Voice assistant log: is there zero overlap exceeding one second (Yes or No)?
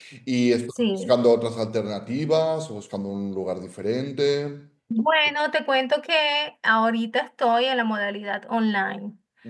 Yes